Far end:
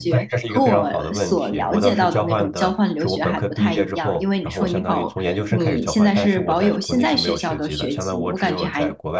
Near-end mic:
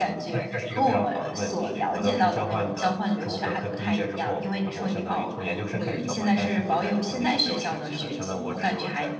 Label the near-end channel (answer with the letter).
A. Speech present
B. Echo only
B